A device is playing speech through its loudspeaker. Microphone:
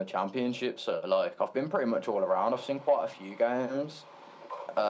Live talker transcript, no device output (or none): none